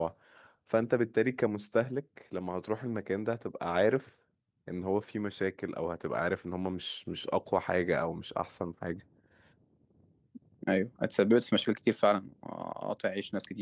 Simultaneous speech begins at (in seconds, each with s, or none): none